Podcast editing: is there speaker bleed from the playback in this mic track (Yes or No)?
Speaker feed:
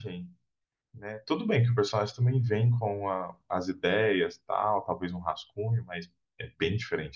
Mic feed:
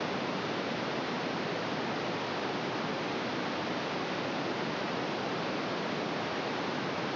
No